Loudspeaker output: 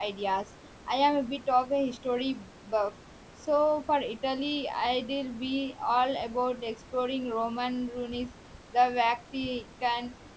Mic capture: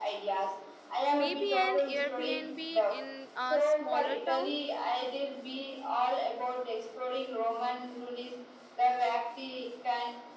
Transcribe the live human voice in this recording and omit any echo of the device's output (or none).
maybe an Airbnb in a smaller town.